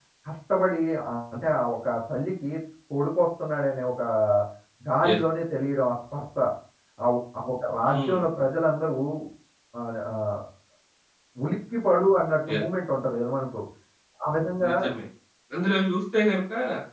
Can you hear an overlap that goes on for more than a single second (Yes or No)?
No